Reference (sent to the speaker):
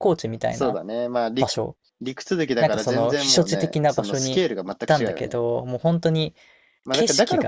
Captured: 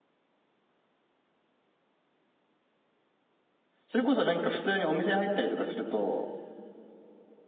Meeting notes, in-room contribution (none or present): present